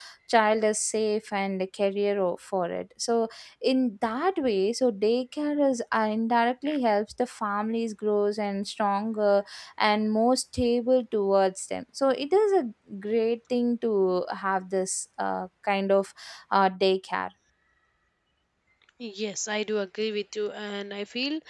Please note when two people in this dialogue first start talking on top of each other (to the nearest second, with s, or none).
none